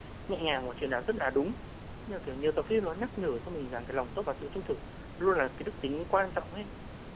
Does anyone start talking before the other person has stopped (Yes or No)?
No